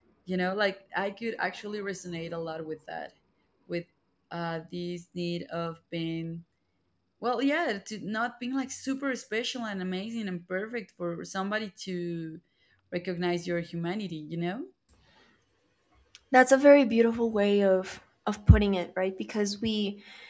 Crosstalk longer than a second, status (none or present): none